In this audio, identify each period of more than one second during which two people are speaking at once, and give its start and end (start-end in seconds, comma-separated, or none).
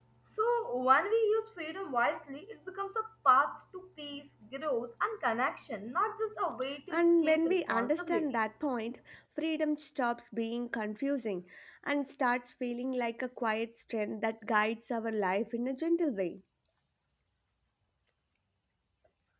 6.9-8.2